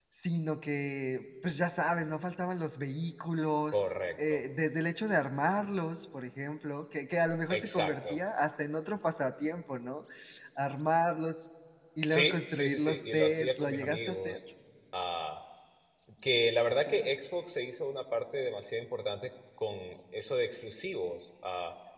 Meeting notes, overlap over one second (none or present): present